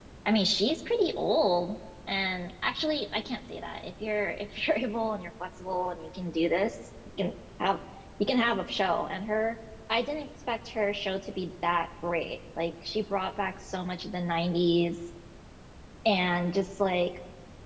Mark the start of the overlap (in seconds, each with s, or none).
none